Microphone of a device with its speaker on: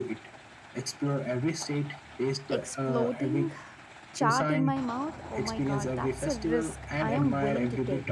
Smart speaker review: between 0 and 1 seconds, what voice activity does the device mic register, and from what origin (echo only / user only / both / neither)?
echo only